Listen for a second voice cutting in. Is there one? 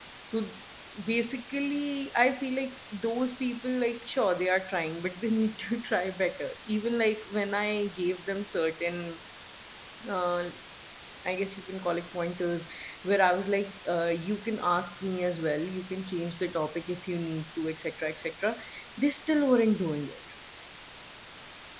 No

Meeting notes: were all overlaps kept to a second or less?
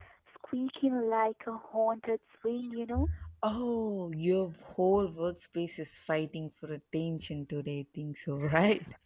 Yes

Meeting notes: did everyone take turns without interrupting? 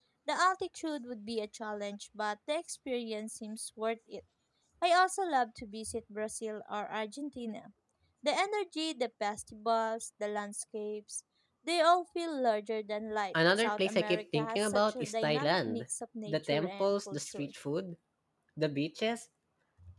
No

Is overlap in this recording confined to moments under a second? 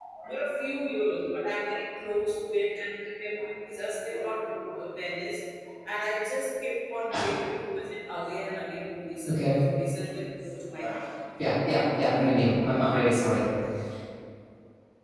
Yes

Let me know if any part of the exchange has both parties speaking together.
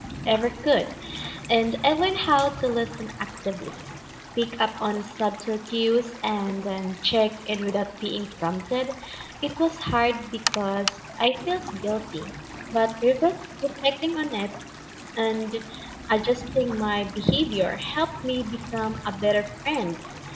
No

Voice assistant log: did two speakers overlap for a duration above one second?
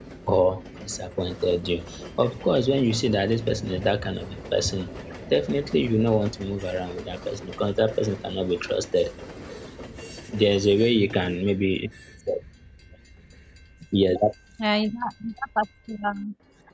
No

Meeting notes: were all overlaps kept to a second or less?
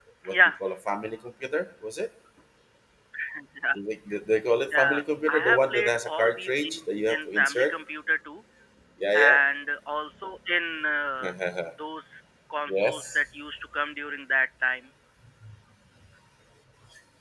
No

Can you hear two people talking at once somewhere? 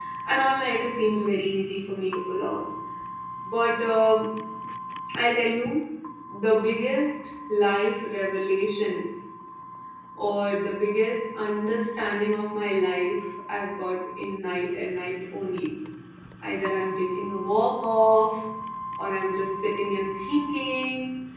No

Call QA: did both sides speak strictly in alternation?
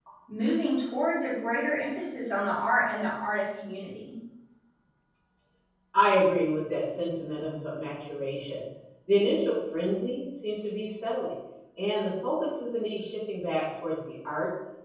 Yes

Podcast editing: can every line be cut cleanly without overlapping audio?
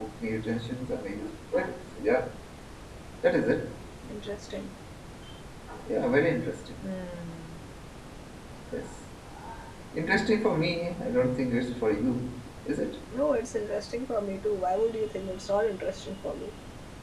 Yes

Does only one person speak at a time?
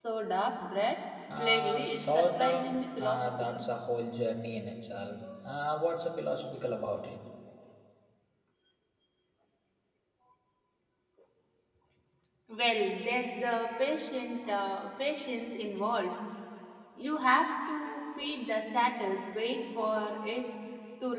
No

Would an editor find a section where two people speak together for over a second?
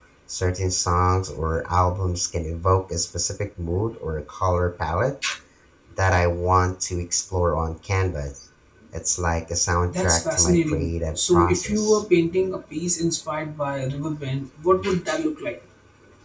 Yes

